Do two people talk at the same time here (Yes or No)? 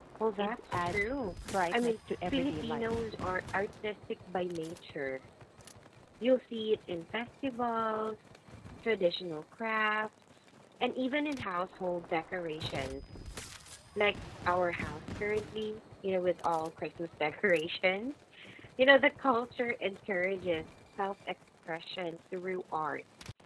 Yes